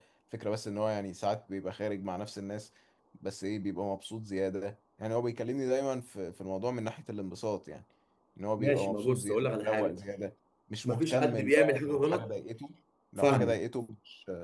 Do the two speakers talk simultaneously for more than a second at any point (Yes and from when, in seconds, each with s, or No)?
Yes, from 8.6 s